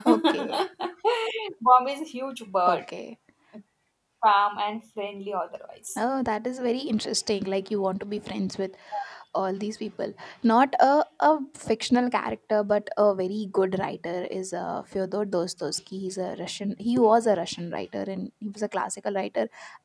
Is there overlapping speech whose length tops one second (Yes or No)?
No